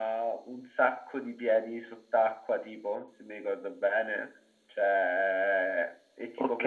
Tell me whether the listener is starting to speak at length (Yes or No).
No